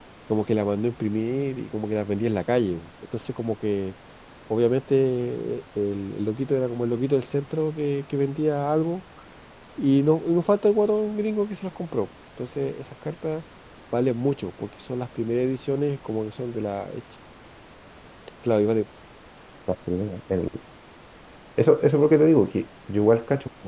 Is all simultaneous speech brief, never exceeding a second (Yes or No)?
Yes